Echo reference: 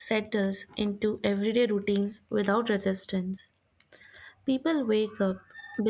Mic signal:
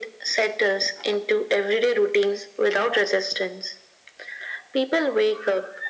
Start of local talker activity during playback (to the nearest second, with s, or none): none